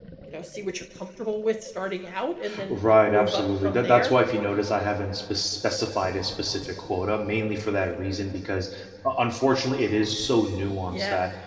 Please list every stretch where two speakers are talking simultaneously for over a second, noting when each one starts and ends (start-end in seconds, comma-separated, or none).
2.7-4.1